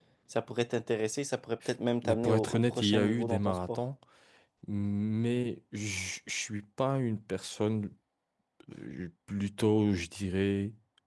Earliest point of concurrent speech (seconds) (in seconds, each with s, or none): 2.0 s